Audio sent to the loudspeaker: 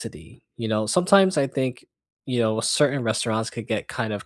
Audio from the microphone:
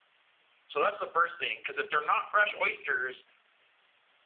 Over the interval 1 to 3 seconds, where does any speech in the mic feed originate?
user only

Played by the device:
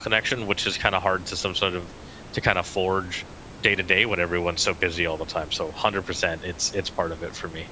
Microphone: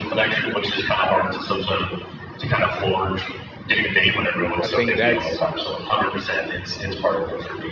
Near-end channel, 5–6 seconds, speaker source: both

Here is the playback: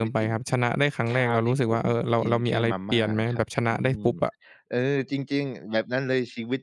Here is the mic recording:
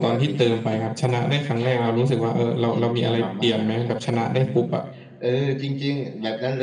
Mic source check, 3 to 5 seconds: echo only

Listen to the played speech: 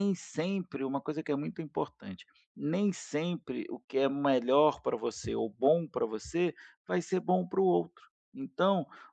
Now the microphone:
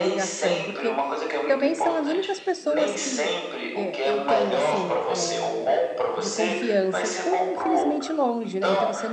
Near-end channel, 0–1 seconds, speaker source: both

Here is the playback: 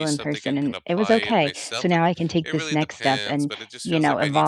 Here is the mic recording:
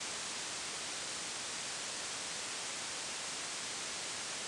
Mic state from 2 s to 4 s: neither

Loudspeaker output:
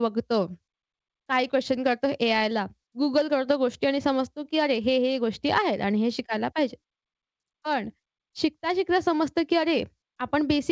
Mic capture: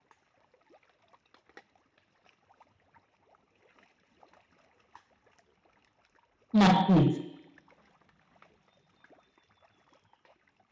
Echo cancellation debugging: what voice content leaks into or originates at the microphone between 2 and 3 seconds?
neither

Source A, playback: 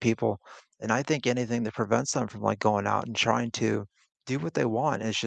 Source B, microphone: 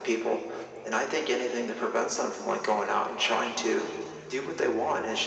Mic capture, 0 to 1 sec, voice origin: echo only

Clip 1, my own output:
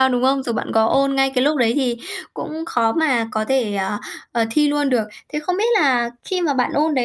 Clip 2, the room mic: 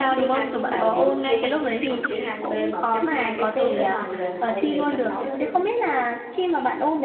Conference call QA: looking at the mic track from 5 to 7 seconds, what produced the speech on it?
both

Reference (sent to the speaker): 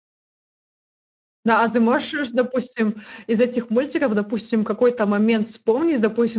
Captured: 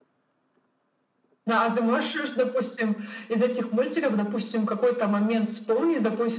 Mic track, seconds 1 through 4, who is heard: echo only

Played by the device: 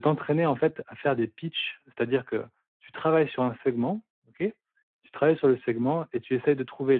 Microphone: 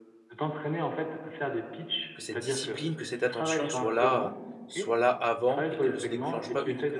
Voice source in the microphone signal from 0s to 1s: echo only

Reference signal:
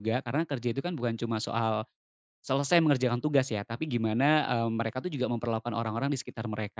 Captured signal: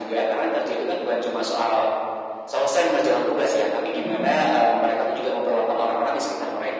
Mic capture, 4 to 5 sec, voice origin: both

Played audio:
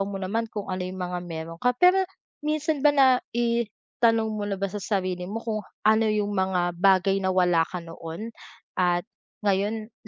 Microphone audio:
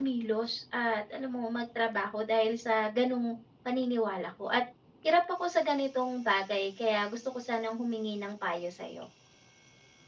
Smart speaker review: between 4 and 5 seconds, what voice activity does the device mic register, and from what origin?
user only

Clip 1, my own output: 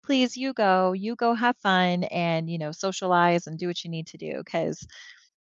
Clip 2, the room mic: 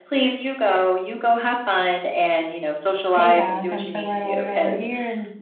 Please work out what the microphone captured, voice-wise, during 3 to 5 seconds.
both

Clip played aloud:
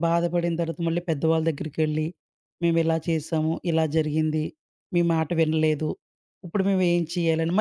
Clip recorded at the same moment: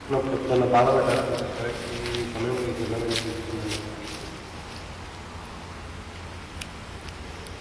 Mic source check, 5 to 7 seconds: neither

